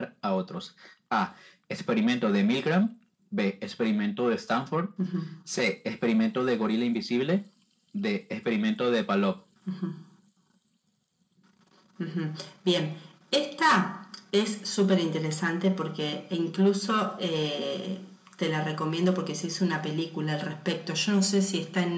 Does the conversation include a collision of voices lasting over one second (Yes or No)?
No